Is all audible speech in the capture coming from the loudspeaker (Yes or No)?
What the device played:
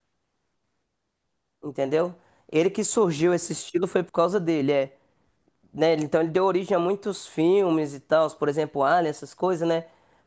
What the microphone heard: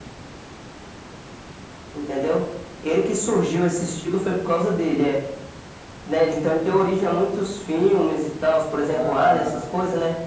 No